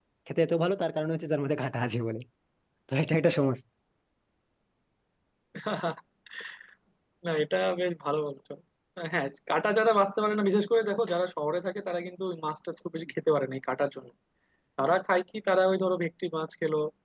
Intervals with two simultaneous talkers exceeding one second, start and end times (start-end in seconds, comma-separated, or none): none